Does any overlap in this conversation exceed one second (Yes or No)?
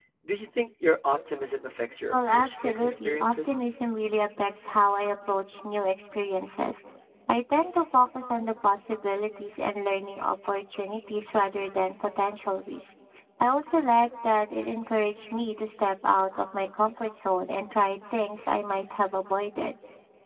Yes